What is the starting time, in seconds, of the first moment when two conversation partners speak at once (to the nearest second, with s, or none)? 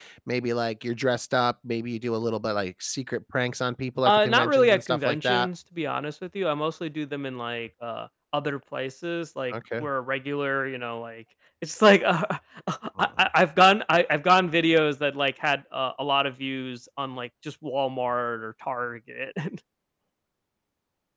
4 s